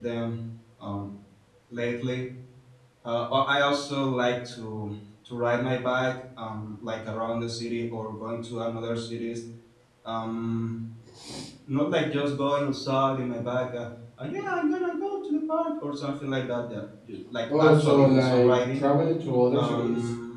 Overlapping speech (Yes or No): Yes